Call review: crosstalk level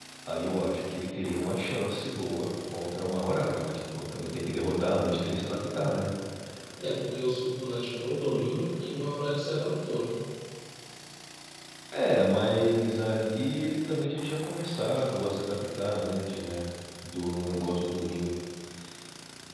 none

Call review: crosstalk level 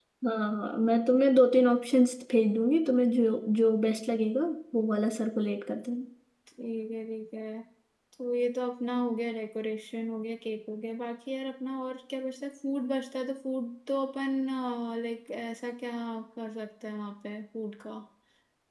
none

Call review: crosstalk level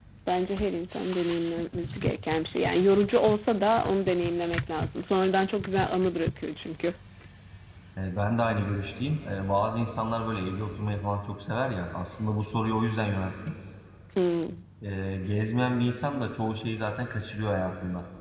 none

